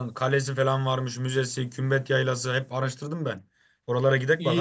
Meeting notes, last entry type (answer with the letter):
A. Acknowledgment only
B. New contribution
B